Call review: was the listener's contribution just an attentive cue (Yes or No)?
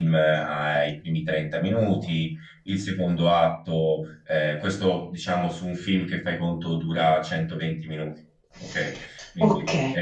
No